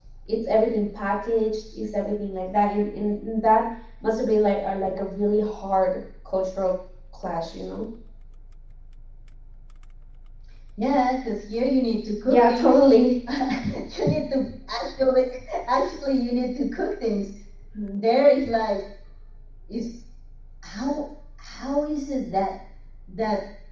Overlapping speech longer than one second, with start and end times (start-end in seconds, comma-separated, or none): none